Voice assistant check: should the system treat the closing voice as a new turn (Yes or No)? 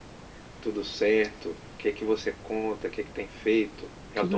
Yes